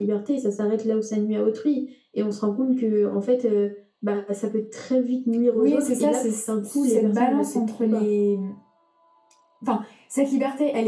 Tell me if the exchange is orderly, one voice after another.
No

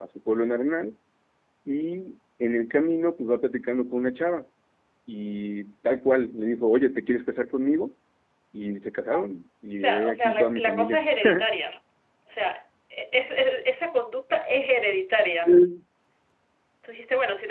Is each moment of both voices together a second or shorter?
No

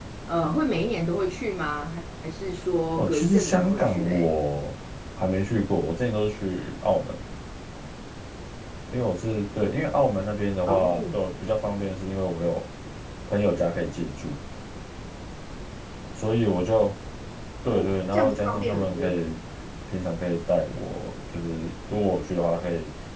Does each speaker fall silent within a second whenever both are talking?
No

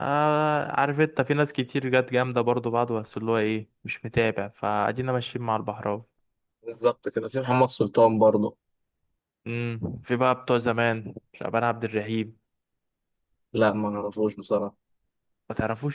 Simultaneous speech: No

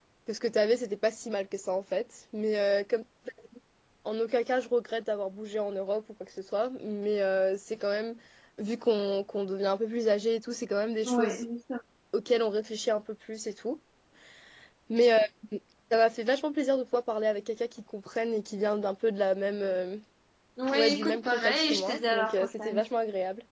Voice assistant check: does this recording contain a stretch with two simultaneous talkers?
Yes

